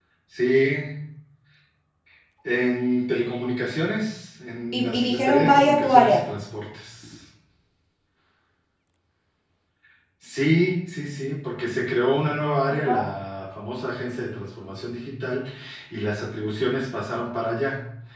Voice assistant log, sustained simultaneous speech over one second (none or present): present